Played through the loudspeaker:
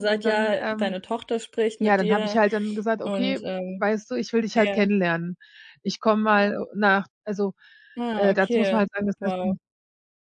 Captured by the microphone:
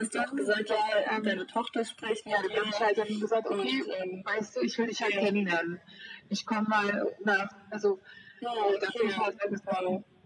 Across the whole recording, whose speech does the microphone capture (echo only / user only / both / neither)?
echo only